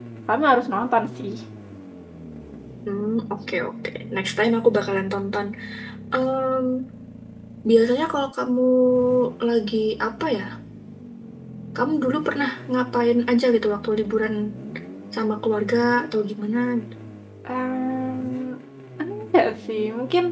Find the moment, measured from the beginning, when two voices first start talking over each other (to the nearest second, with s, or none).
none